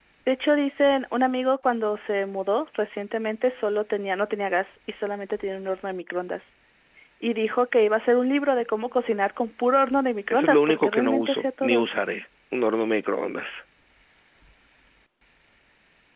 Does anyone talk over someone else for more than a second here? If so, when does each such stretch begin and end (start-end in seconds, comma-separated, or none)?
10.3-11.8